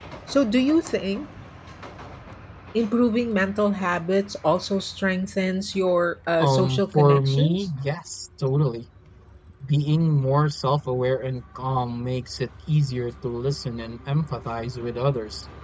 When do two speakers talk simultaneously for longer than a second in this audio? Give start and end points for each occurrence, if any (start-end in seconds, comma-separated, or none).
6.4-7.7